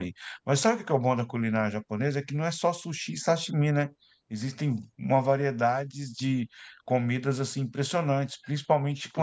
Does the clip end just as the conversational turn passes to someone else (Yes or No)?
No